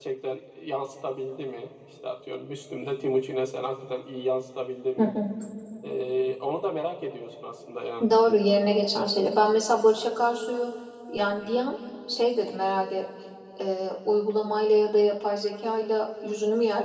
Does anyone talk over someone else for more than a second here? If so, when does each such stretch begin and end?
none

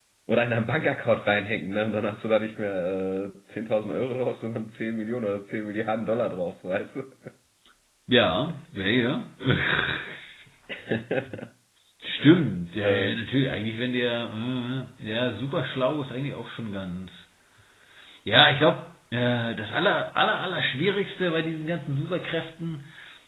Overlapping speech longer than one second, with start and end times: none

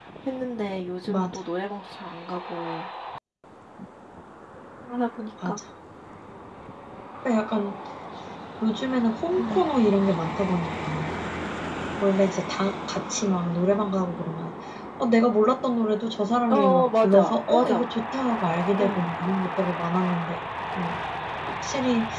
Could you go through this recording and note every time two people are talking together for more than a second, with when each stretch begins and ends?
16.5-17.9

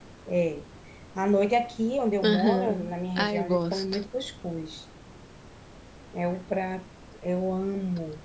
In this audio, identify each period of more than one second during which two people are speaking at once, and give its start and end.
2.2-4.0

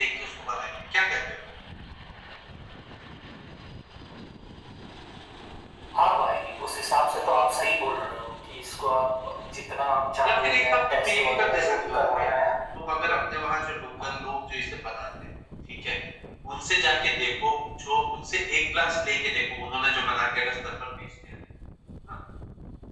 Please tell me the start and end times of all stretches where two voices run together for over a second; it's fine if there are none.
10.2-12.2

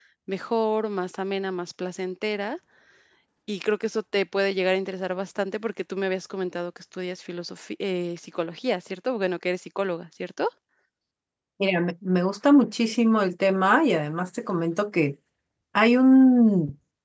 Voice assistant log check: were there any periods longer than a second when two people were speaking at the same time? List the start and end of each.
none

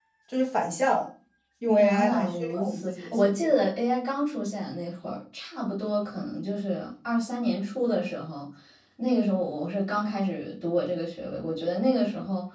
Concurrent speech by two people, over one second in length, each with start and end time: 1.7-3.6

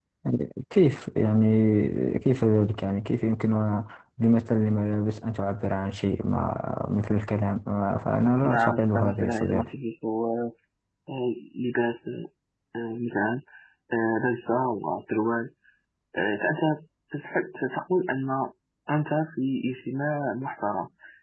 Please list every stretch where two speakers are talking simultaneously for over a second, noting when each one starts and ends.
8.4-9.7

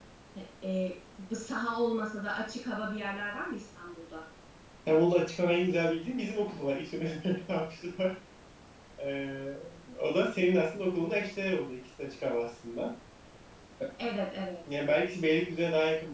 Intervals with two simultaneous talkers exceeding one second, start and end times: none

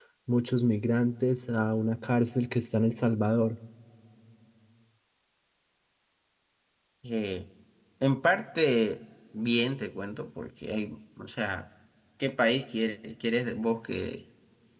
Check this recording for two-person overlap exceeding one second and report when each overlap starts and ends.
none

